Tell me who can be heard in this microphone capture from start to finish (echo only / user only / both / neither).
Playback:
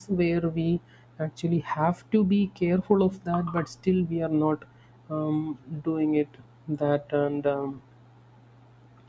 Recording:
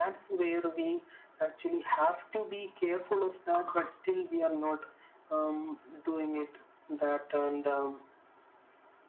echo only